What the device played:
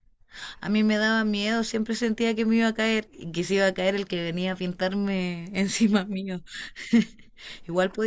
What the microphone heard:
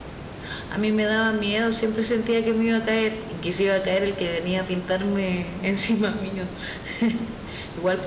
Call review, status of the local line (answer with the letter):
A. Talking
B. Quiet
B